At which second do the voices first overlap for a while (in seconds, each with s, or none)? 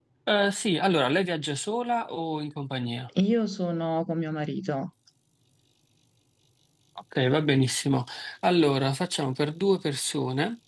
none